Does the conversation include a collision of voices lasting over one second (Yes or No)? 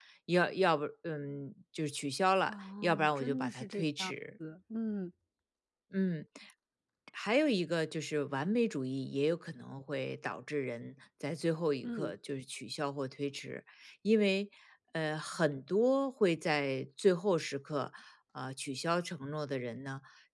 Yes